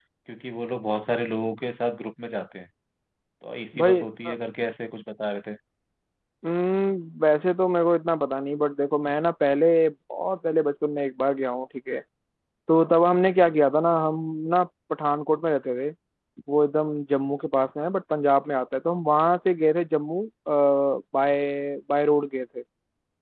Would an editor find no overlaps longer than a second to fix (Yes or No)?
Yes